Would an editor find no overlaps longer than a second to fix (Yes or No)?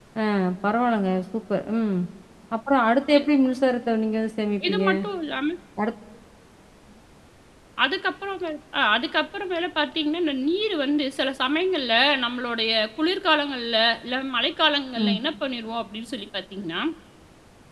Yes